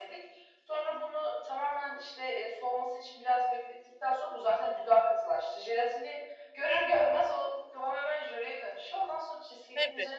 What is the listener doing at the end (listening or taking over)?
listening